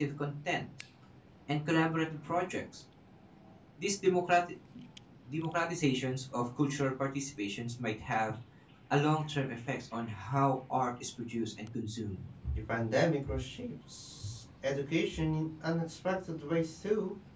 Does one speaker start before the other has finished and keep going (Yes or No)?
No